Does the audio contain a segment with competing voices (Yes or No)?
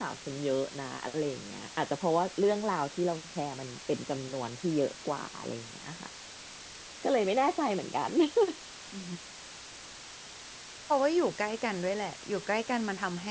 No